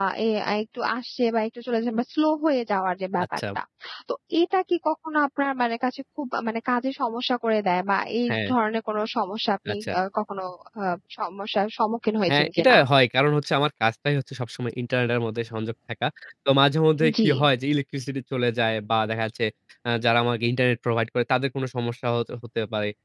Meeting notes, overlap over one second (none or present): none